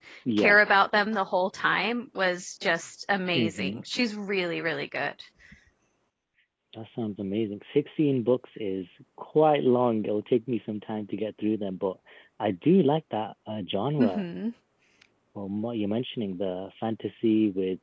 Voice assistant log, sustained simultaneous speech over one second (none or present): none